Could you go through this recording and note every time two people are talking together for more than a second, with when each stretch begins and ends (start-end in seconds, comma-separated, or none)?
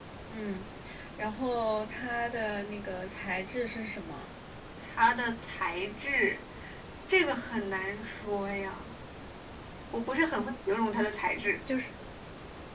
none